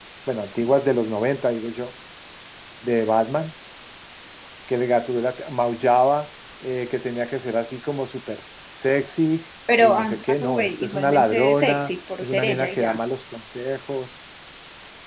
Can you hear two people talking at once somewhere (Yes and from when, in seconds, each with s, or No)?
Yes, from 9.7 s